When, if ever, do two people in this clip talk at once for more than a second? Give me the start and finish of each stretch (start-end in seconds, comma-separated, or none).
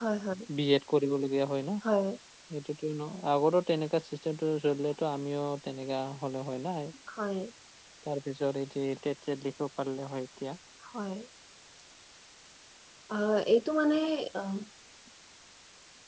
none